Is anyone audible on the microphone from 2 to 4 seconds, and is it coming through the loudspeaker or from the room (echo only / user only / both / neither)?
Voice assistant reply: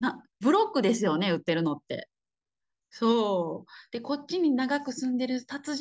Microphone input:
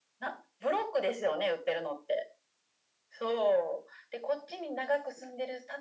echo only